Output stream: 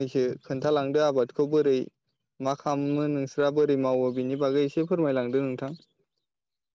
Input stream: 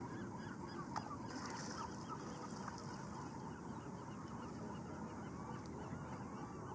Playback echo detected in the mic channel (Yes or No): No